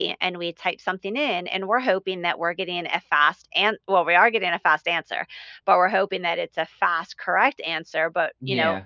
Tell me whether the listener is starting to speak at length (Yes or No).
No